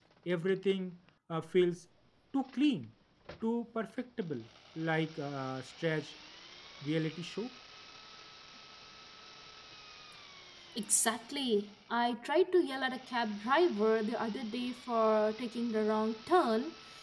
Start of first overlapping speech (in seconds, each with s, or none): none